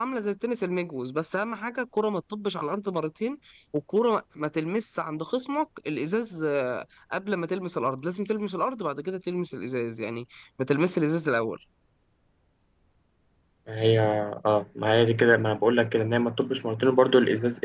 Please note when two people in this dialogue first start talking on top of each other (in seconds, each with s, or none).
none